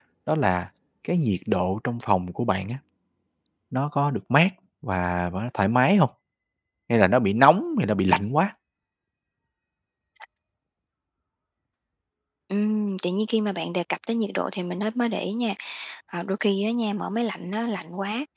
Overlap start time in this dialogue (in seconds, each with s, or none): none